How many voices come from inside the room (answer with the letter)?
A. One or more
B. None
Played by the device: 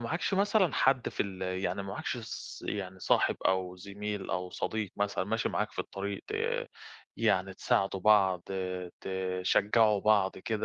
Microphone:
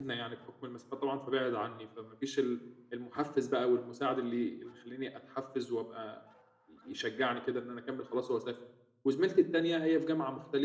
A